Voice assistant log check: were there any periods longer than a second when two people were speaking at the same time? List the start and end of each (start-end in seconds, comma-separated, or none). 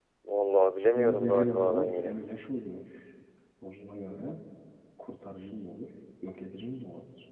0.9-2.2